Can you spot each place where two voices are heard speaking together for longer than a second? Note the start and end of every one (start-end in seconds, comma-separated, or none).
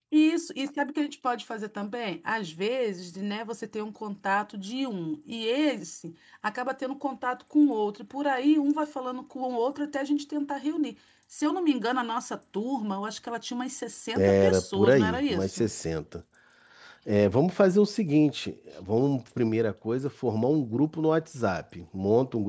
14.2-15.7